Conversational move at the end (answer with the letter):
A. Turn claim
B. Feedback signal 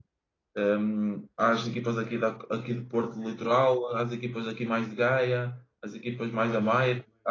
B